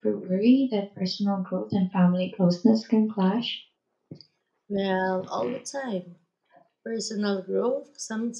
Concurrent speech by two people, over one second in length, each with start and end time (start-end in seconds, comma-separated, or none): none